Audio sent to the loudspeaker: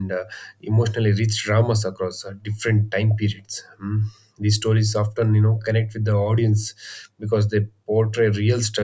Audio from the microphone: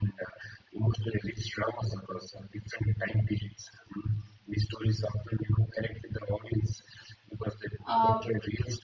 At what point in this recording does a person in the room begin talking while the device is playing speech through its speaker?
7.9 s

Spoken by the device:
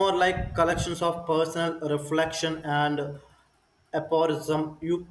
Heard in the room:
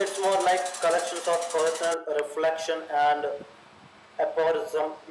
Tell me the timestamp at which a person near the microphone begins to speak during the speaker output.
none

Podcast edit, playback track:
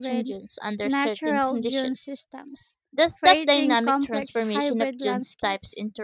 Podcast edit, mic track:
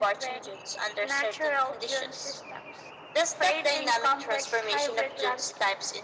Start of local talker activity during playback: none

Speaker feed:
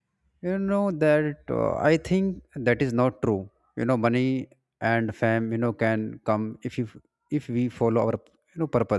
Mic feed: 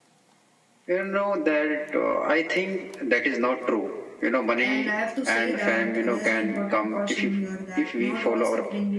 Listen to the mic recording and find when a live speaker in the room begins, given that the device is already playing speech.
4.6 s

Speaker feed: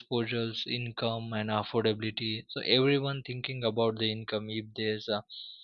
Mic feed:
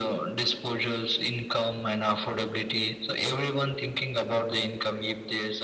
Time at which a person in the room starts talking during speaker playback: none

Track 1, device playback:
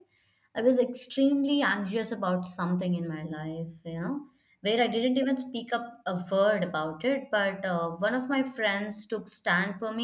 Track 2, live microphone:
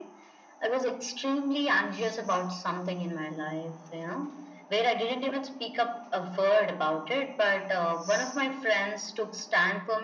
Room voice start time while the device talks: none

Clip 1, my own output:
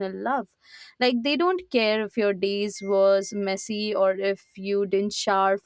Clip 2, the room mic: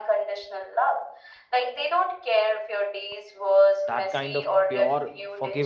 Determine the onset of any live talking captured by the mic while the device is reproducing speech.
3.9 s

